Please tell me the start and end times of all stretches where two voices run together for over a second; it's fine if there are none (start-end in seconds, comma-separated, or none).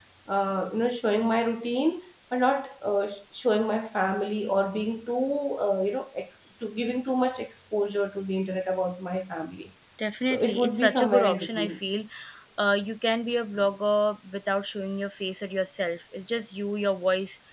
10.3-11.8